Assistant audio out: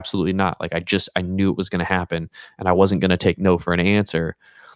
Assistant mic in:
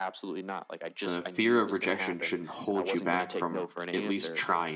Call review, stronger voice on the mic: user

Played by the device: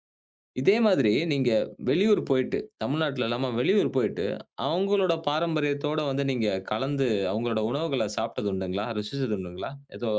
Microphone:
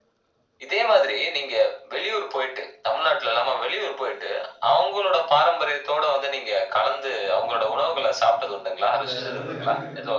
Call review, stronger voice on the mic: echo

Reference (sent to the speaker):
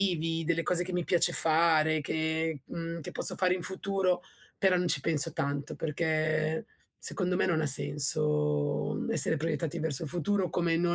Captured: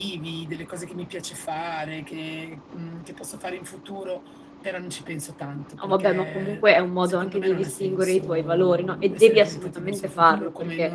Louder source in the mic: user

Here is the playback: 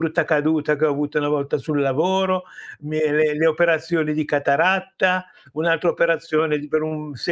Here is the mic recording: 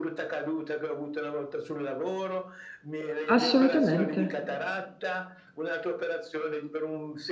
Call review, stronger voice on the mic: user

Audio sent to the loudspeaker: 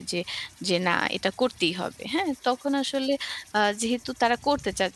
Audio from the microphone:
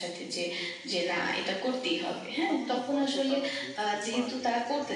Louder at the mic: echo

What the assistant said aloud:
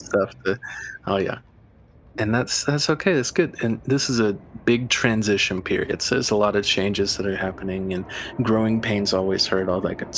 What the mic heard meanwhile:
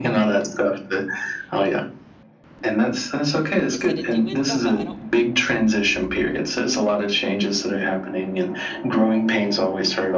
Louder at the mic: echo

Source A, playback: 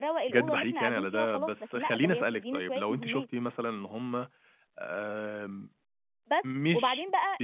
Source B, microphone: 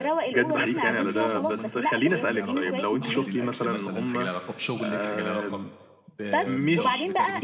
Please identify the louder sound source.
echo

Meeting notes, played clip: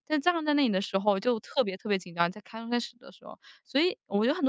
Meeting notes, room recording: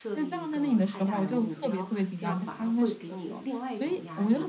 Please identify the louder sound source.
echo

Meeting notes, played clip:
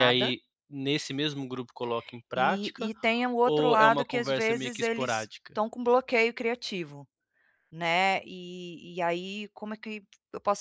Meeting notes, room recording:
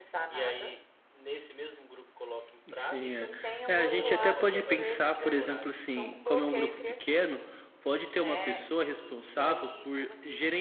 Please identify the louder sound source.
user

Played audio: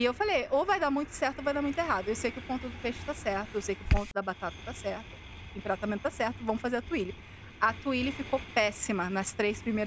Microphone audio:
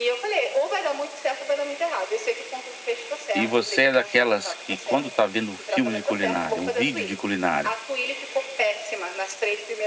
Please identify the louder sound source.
user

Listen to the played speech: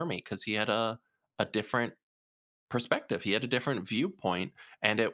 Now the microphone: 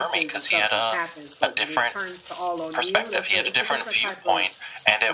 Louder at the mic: echo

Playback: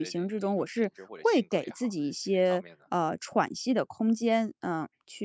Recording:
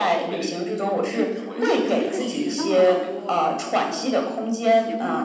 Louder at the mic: echo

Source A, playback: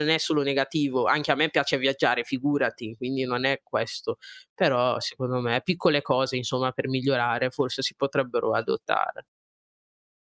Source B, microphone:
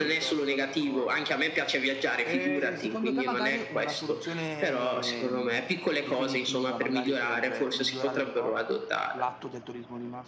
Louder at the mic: echo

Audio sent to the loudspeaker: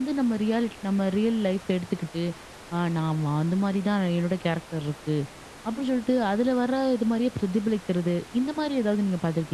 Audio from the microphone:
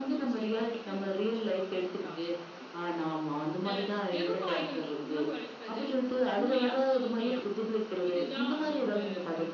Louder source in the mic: echo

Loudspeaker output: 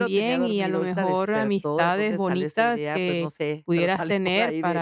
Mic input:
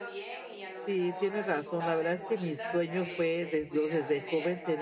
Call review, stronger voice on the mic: user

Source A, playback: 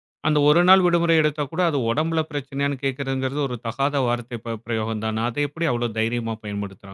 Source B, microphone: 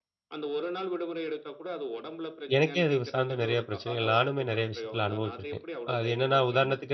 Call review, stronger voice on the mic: user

